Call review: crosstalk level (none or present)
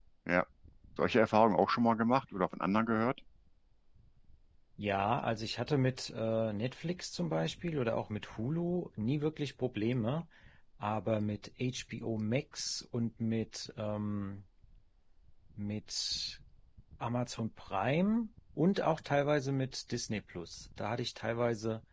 none